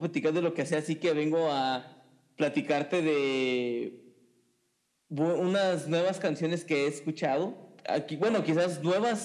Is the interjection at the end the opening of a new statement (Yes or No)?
No